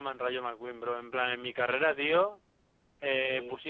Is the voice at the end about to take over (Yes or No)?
No